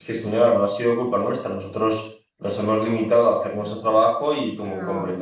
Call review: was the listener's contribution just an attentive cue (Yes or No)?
Yes